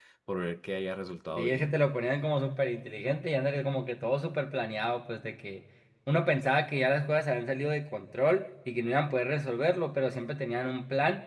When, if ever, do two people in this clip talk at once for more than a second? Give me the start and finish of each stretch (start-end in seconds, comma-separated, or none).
none